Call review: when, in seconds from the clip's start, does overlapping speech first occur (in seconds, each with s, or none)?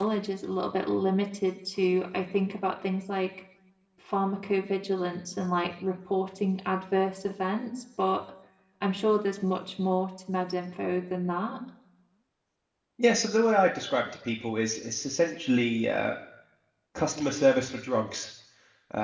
none